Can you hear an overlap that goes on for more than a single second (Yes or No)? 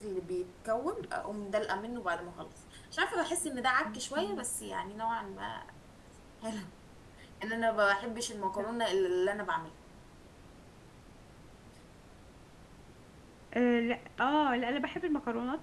No